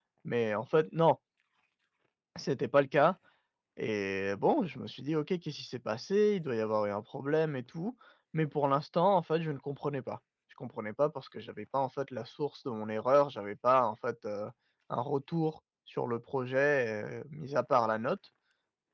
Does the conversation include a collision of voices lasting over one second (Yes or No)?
No